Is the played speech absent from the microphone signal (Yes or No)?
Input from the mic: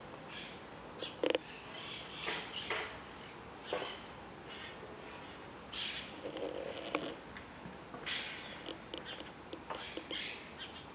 Yes